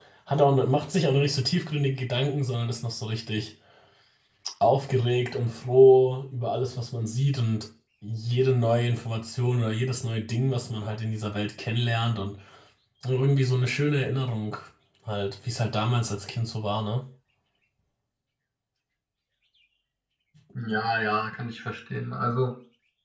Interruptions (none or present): none